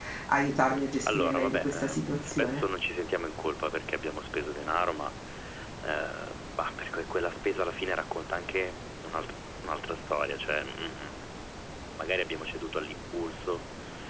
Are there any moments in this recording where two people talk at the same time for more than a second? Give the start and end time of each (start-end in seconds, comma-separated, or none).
1.0-2.6